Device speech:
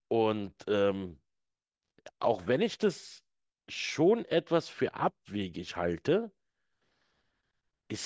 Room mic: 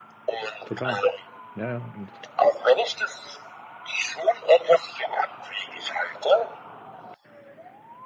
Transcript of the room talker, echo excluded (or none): total. Ja, ja, und